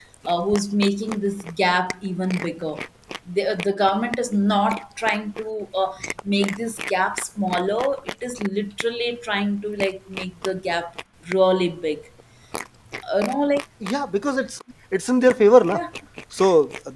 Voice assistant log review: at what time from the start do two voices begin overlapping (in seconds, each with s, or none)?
none